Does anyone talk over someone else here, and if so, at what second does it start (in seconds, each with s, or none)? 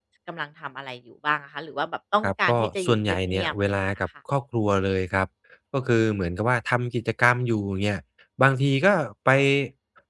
2.2 s